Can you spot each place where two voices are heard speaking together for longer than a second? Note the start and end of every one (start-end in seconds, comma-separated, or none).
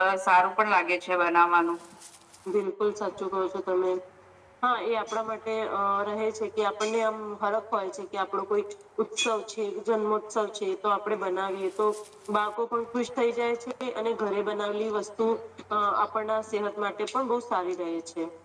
none